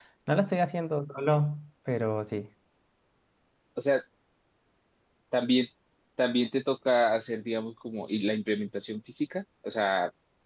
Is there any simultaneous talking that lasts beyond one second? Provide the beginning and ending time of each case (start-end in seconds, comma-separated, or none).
none